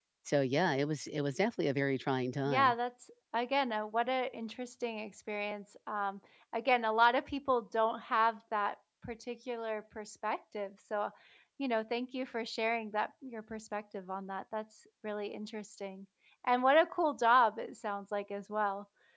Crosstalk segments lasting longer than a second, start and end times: none

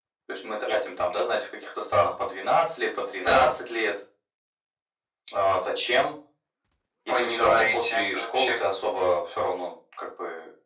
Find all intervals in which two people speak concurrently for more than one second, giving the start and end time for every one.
7.1-8.6

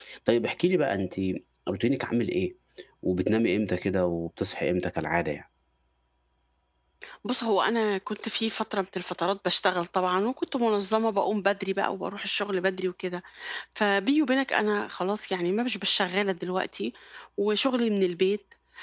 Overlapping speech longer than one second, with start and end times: none

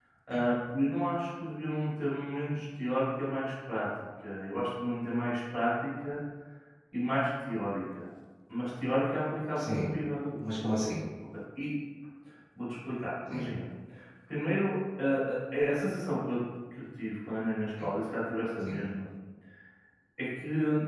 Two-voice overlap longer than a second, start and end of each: none

